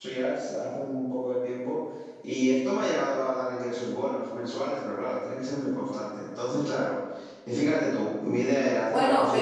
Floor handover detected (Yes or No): Yes